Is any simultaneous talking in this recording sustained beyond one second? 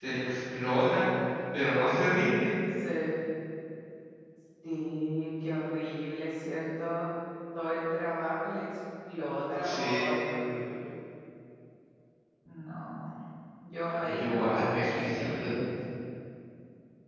Yes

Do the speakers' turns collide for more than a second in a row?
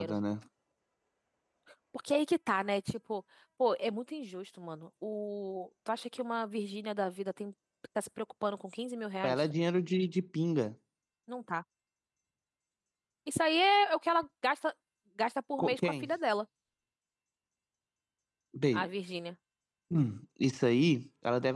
No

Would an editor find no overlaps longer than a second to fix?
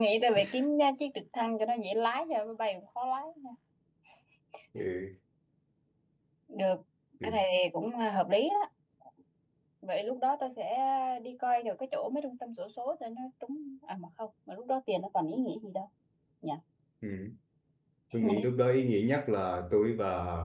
Yes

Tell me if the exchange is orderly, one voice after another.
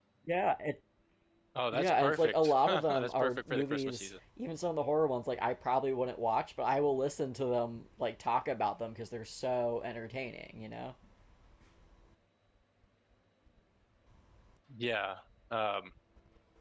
No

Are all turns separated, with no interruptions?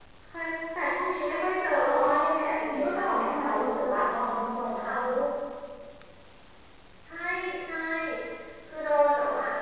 No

